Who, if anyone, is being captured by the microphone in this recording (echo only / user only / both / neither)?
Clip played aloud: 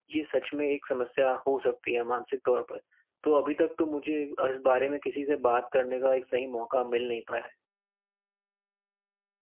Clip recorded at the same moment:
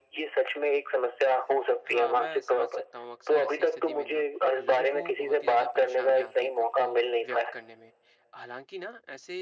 both